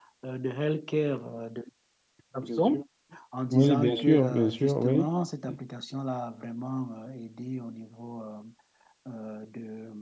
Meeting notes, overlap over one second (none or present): present